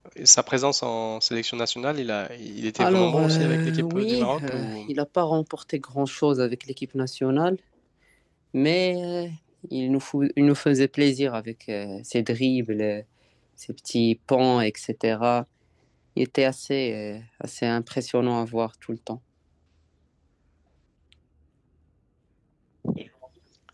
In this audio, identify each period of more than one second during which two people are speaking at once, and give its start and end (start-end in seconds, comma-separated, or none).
2.8-4.7